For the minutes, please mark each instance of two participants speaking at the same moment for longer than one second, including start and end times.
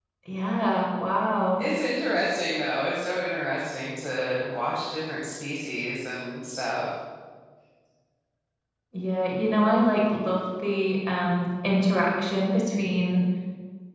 none

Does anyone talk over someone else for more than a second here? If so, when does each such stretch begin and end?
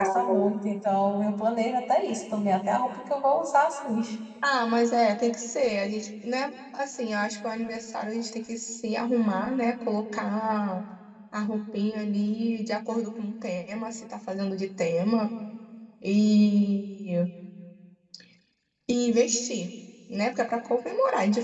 none

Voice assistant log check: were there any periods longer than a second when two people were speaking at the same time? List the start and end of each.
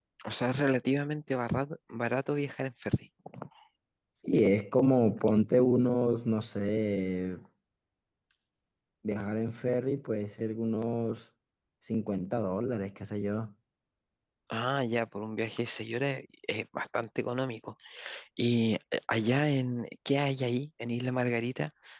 none

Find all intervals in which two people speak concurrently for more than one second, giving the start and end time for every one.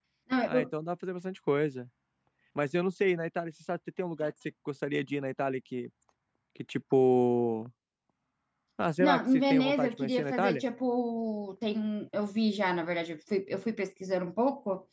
9.0-10.6

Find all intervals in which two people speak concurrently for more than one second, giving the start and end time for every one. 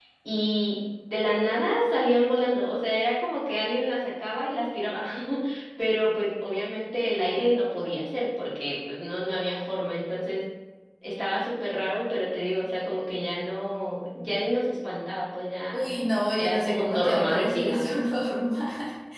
16.4-18.0

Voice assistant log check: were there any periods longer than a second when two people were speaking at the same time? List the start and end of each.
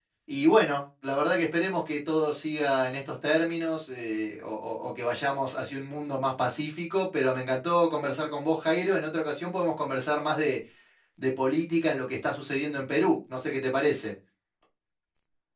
none

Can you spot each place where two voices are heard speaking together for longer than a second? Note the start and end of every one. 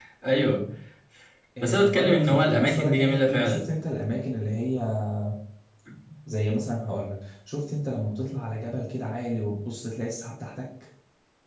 1.6-3.6

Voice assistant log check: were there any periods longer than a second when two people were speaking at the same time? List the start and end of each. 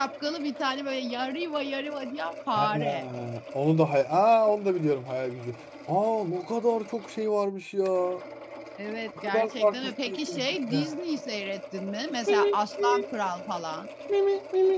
9.2-10.9

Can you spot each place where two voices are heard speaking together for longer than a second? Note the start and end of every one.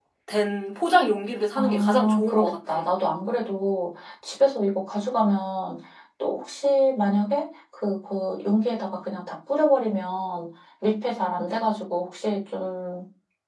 1.6-2.8

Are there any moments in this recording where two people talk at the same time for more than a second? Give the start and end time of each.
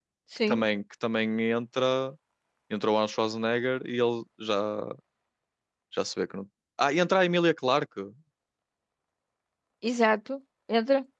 none

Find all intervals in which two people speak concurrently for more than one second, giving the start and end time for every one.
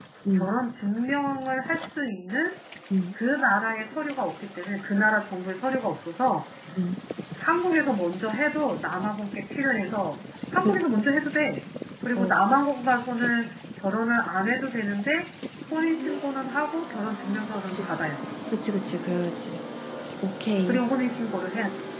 none

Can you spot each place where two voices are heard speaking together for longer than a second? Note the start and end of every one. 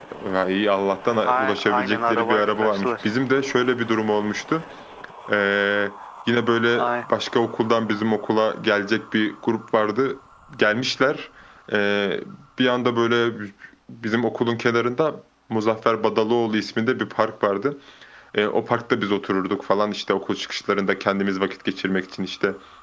1.1-2.9

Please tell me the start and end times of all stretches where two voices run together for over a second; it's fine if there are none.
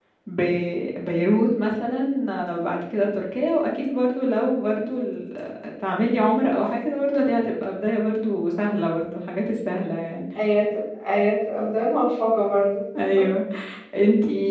none

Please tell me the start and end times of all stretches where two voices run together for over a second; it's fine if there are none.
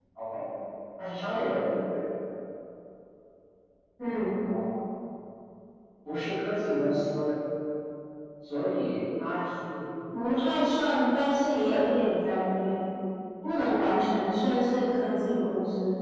none

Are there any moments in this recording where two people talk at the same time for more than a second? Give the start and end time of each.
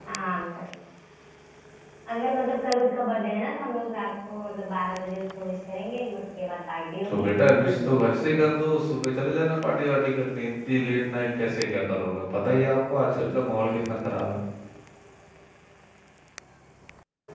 7.1-8.6

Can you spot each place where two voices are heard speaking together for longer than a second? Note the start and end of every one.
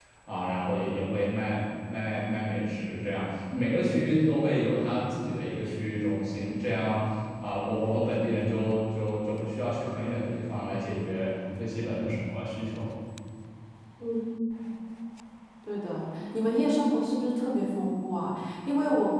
none

